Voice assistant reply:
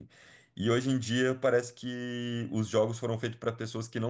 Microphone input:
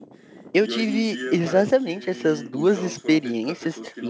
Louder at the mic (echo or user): user